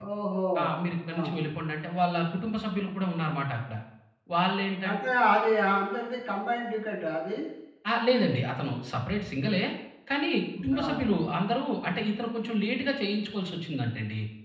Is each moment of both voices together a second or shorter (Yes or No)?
Yes